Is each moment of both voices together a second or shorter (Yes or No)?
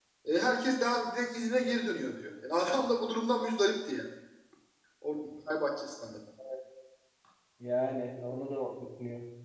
Yes